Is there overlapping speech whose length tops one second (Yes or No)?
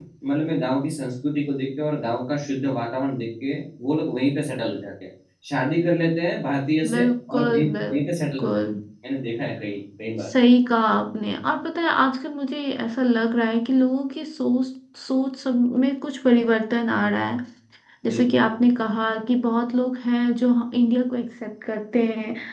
Yes